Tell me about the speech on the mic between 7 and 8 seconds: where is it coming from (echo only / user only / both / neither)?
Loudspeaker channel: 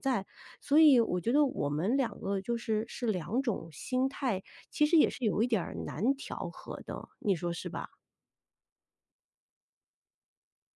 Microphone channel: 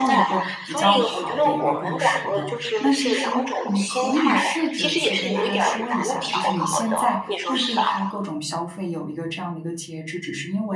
both